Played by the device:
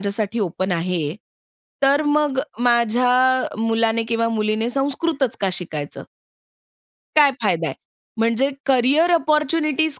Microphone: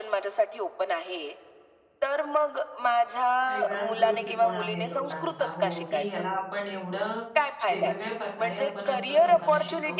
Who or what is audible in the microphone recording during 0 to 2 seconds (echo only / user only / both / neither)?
echo only